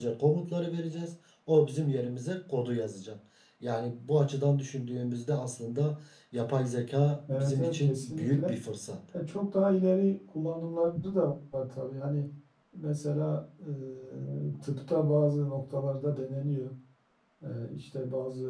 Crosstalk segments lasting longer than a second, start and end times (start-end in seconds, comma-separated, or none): 7.3-8.5